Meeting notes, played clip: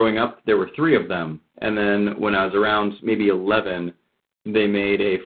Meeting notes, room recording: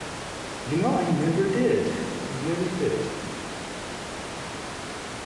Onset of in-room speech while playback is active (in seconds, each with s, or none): 0.6 s